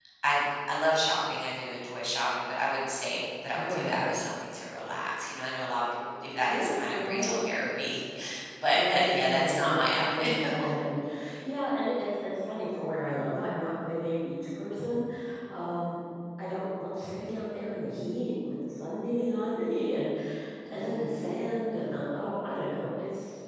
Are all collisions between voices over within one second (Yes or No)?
No